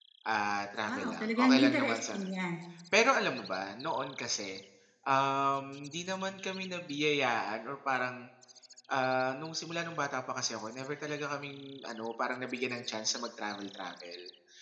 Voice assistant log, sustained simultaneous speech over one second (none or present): present